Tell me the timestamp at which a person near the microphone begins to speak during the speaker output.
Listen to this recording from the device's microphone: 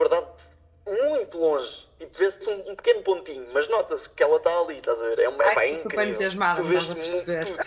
5.4 s

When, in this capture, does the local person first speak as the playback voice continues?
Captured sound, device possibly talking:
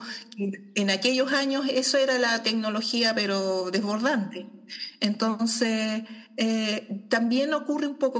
none

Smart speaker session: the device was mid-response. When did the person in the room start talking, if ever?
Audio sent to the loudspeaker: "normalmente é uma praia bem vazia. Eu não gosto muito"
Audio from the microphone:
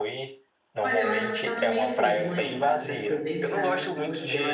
0.8 s

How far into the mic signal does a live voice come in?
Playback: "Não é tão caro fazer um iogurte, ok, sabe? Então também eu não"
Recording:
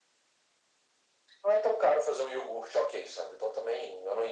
none

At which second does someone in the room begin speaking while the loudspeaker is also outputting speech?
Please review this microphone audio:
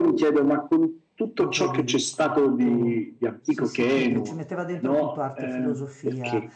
1.4 s

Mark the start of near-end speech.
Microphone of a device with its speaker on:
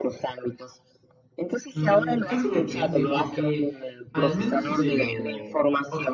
1.7 s

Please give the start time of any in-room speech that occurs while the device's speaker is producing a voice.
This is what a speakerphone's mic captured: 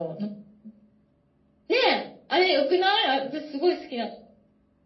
none

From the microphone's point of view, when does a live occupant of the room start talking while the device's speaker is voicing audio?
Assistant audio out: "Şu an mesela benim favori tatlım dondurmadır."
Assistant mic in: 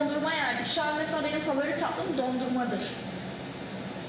none

